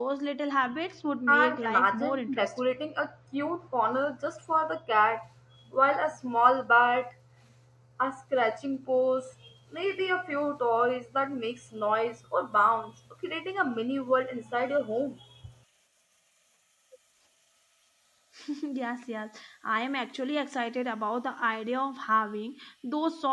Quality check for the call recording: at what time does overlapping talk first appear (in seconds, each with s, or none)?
1.3 s